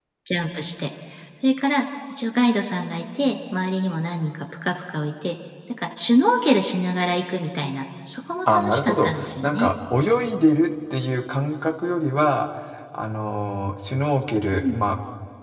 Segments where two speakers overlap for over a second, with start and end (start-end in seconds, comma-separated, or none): 8.5-9.7